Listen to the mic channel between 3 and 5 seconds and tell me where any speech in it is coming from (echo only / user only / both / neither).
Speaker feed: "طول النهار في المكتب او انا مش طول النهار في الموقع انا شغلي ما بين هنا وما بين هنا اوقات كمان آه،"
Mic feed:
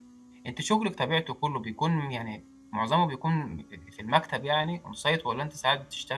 user only